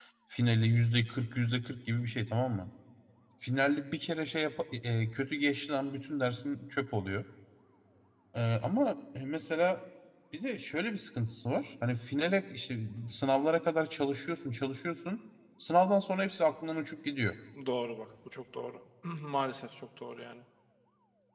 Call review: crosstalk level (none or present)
none